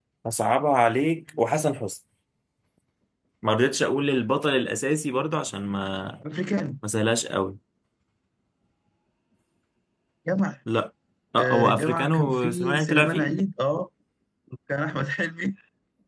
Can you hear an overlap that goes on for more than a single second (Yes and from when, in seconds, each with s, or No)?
Yes, from 11.4 s